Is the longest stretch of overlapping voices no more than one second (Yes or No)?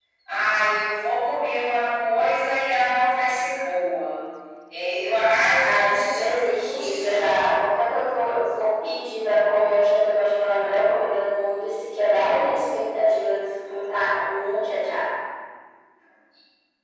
No